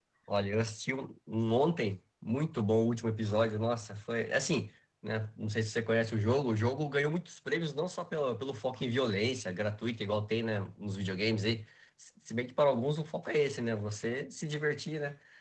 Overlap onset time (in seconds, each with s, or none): none